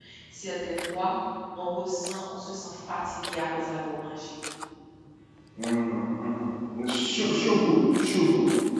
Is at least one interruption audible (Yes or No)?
No